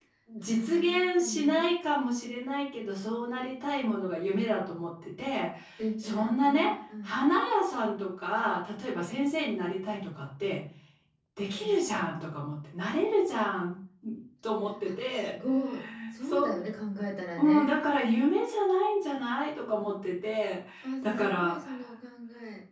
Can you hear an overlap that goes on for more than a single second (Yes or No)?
Yes